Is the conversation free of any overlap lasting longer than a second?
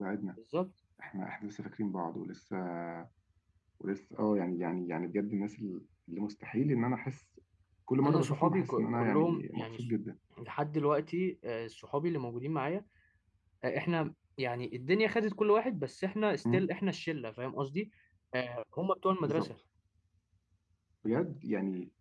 No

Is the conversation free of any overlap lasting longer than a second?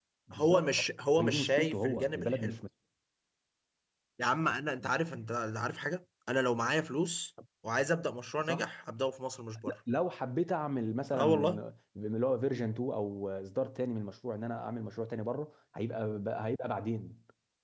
No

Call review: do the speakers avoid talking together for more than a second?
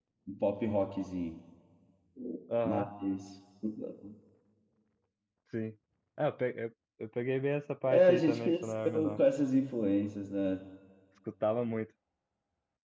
No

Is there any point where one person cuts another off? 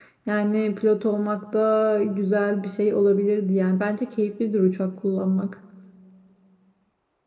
No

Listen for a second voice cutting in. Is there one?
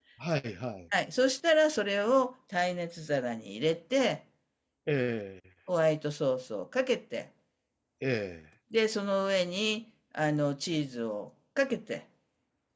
No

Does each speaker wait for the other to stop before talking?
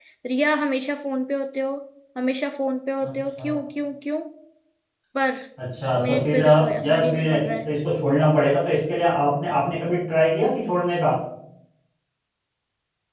No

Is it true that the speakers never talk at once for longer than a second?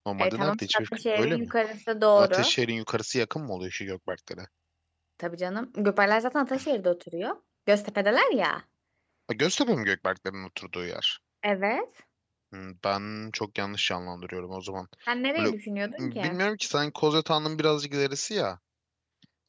No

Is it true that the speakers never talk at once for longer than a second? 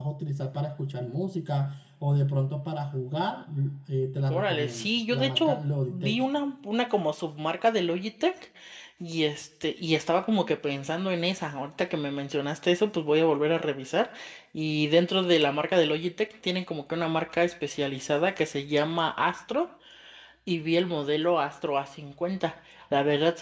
No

